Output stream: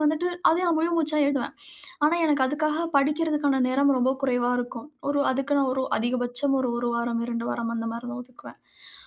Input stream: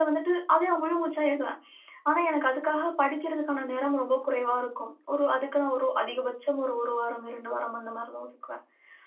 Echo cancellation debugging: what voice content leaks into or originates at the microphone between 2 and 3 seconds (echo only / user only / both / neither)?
echo only